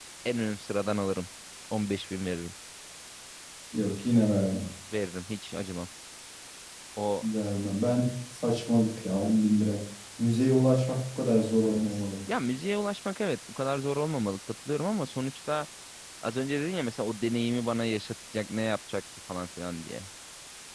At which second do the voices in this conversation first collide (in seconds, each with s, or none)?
none